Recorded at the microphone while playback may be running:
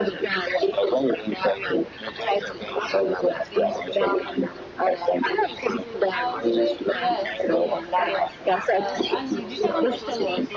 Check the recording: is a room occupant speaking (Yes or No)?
Yes